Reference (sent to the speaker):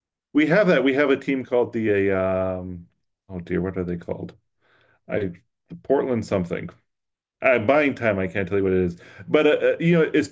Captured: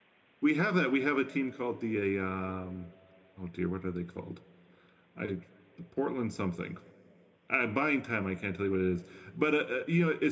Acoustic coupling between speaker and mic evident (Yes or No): Yes